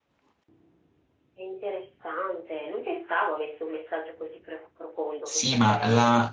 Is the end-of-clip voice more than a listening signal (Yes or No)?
Yes